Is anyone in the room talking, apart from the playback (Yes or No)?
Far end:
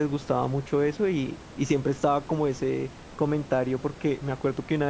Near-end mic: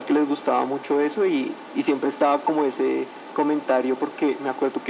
No